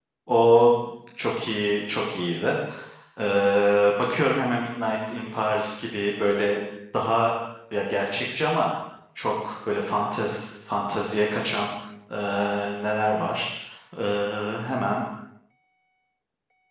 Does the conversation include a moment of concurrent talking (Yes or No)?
No